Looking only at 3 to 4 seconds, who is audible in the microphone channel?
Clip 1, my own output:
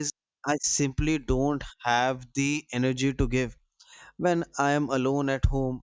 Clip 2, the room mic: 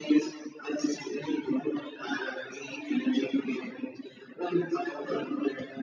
echo only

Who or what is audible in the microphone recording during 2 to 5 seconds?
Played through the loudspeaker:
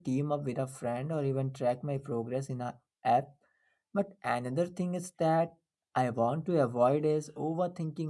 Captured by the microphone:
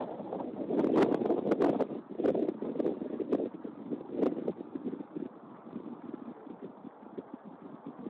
neither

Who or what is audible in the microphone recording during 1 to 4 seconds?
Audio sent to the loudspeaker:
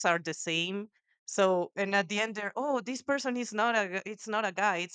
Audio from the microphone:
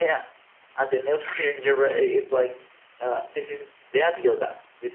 user only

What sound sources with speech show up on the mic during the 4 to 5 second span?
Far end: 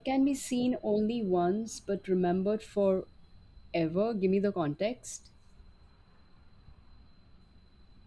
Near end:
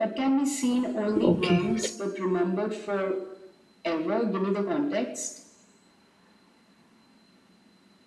echo only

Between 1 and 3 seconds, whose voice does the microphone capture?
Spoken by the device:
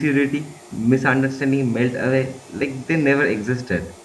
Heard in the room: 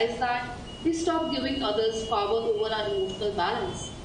user only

